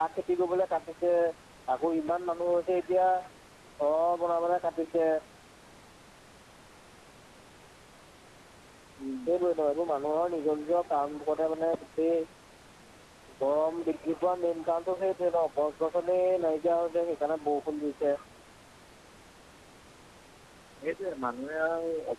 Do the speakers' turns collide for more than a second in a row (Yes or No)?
No